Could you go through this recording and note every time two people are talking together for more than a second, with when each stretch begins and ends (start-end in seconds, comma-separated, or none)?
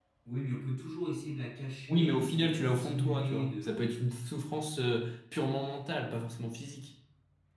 1.9-3.8